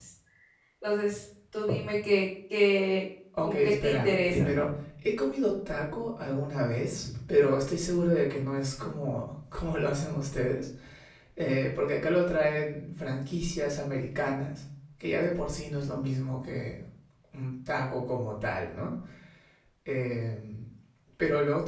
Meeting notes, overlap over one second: present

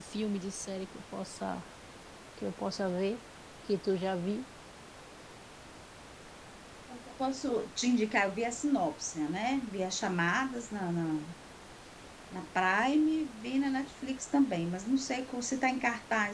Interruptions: none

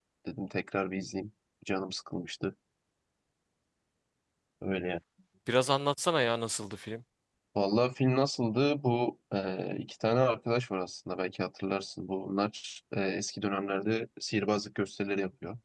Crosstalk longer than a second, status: none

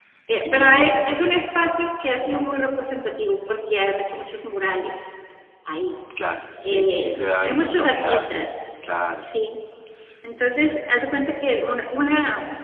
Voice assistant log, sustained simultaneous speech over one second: present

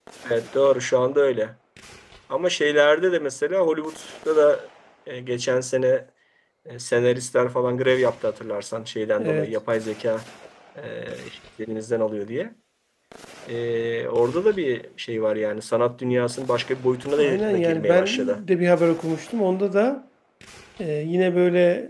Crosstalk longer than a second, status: present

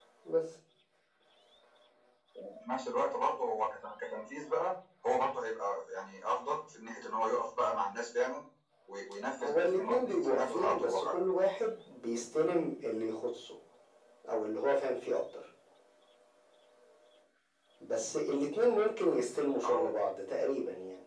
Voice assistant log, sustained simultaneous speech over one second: present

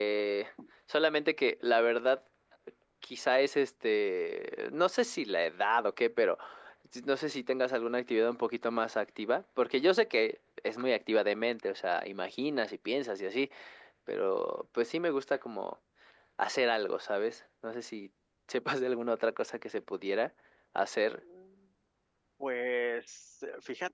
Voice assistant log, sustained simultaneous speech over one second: none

